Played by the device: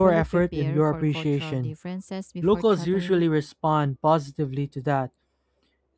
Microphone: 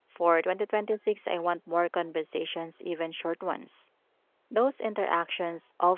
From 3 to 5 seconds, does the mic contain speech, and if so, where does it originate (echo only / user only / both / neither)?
user only